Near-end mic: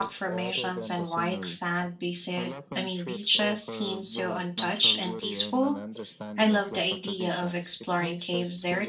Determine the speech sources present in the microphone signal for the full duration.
both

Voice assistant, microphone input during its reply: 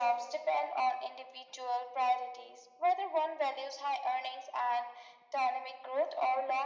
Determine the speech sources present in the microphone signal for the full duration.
echo only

